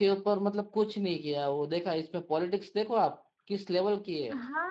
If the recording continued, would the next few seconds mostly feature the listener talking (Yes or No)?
Yes